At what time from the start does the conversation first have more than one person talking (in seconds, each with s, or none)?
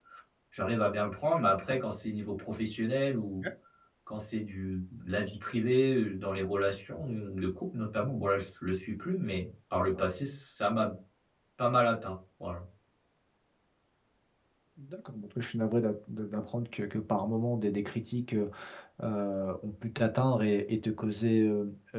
none